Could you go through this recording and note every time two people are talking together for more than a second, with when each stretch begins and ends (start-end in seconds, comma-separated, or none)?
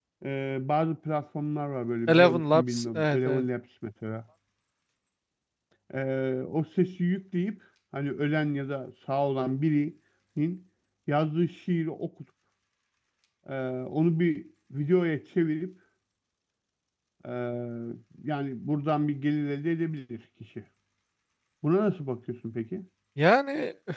2.1-3.4